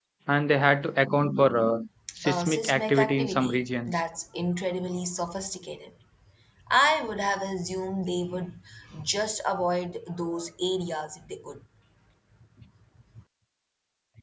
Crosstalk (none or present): present